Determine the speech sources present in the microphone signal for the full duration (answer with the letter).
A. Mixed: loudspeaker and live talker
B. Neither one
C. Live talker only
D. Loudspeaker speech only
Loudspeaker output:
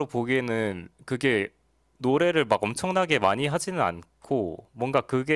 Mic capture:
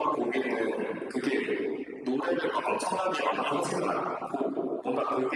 D